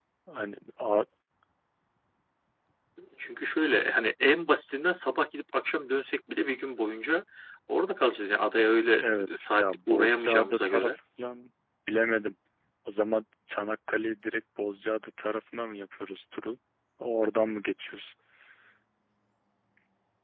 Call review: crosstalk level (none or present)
present